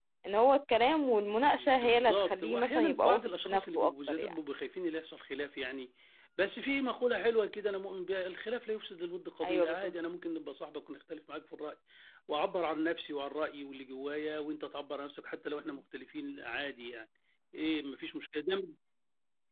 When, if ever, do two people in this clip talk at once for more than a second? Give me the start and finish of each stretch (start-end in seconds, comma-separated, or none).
1.6-4.4